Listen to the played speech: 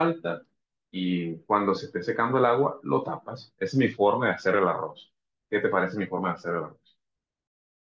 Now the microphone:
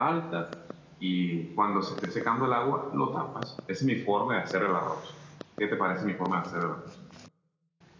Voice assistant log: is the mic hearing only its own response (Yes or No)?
Yes